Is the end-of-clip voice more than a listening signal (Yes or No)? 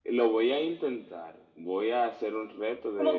Yes